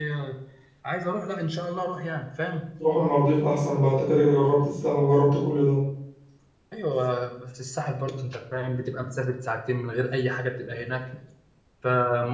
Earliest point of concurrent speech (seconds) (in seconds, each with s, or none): none